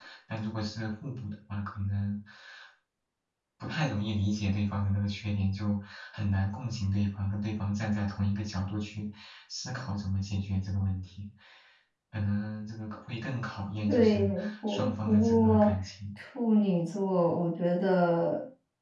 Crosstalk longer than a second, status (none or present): present